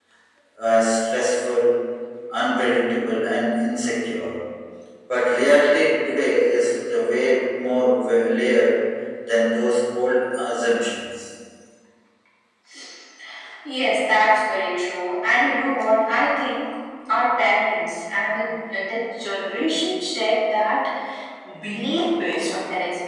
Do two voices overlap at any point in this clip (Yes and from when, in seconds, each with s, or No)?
No